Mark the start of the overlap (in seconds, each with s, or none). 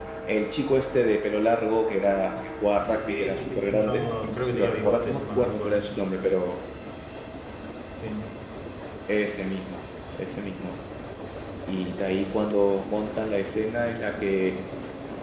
3.1 s